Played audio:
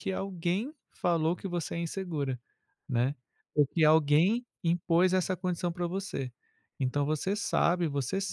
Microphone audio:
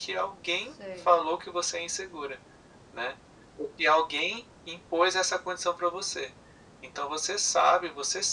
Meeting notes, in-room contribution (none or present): present